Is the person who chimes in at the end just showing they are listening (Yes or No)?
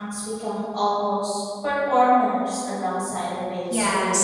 No